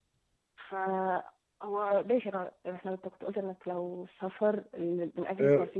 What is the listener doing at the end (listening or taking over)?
taking over